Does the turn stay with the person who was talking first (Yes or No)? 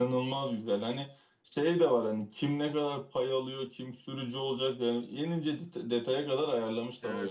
No